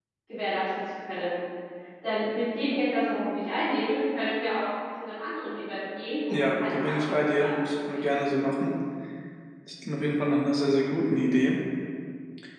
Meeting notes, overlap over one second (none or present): present